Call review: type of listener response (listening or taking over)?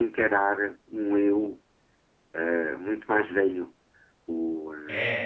listening